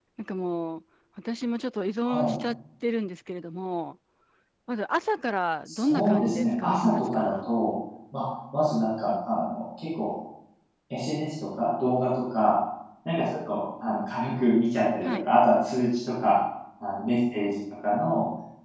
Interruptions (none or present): present